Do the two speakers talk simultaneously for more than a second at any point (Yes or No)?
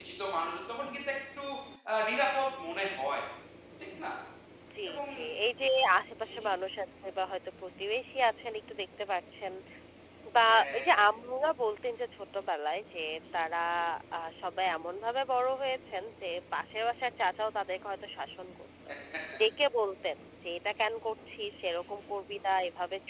No